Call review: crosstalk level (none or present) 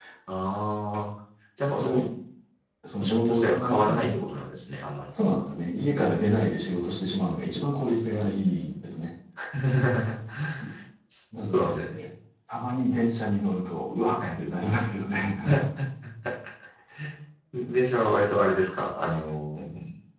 present